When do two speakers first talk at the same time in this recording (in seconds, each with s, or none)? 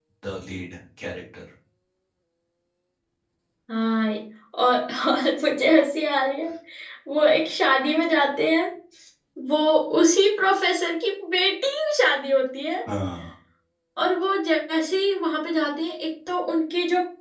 none